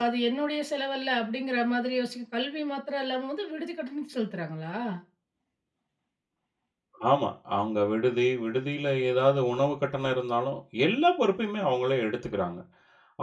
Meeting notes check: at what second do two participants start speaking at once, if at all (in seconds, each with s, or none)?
none